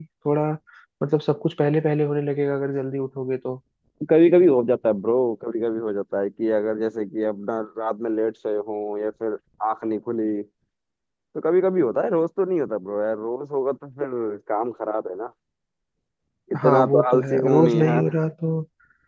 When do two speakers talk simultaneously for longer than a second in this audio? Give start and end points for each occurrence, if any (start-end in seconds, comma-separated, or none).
16.6-18.1